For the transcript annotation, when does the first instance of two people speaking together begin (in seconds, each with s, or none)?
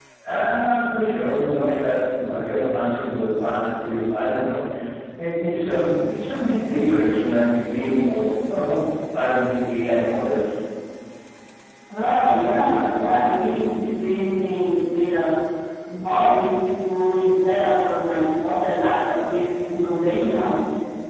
none